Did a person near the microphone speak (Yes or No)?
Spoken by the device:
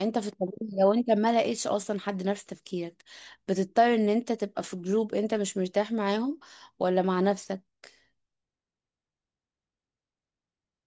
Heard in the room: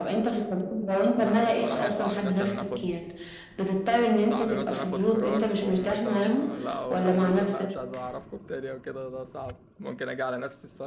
Yes